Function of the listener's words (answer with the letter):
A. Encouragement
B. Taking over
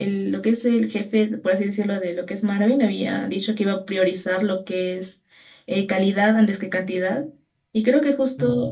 A